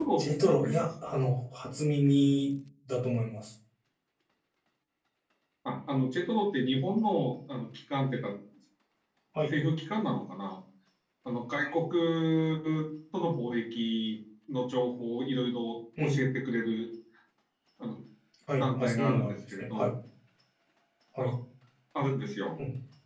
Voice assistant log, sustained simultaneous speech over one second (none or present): present